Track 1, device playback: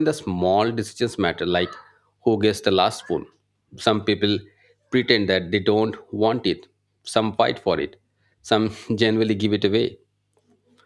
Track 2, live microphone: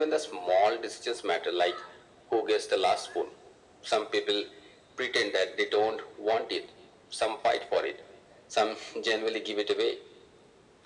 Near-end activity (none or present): none